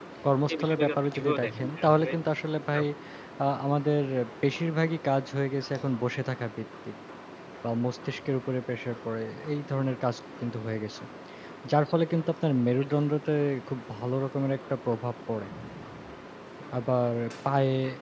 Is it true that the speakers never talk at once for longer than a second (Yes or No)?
No